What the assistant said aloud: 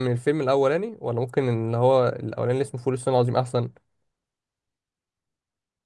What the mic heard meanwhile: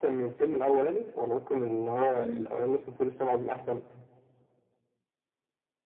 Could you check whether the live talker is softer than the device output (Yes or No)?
Yes